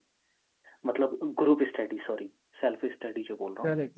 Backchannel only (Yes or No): No